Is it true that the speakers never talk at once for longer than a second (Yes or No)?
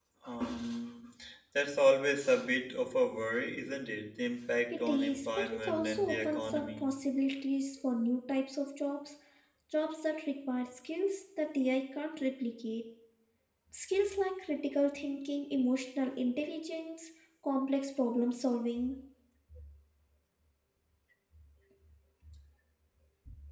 No